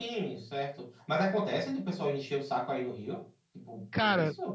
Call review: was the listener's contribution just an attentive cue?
No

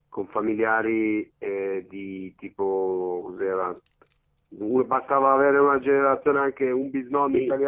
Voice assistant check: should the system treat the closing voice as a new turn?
Yes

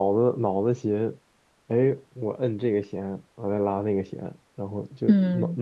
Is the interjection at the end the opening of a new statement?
No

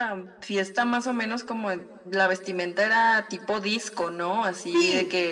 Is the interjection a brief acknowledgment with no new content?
Yes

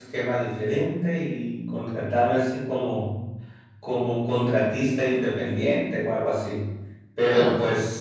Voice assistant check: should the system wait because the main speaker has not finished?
Yes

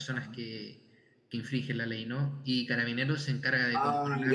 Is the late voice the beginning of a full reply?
Yes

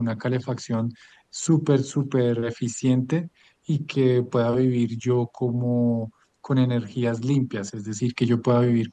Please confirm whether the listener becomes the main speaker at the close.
No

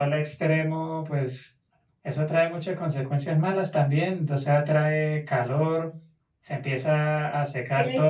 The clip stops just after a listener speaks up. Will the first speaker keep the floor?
Yes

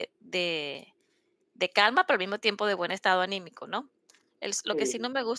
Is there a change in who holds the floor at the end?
No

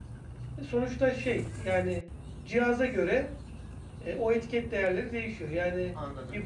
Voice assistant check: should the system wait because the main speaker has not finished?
Yes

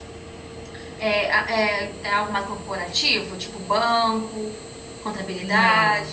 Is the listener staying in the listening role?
No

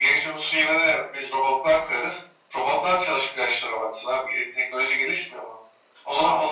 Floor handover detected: No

